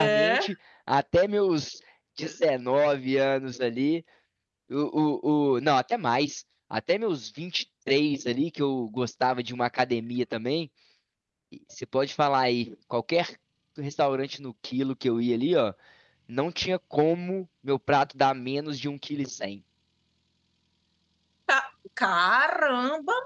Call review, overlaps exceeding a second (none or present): none